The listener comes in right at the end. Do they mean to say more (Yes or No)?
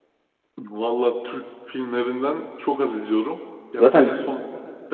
No